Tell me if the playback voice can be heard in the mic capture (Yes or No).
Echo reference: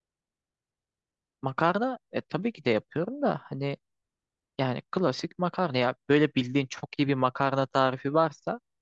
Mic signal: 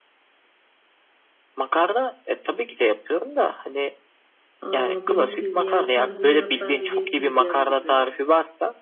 Yes